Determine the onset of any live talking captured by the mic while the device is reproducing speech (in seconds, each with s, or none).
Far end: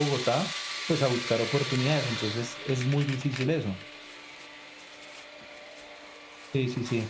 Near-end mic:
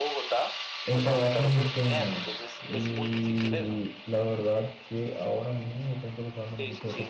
0.8 s